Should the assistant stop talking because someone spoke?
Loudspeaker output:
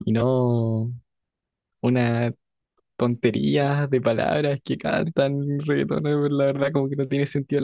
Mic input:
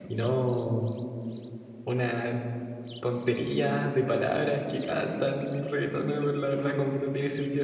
No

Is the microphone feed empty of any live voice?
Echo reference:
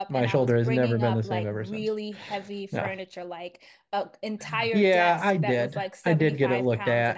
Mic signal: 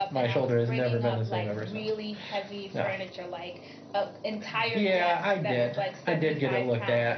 Yes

